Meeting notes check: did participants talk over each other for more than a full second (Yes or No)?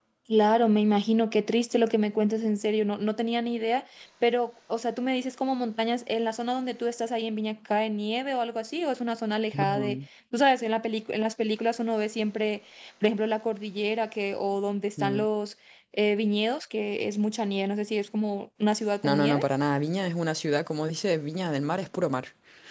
No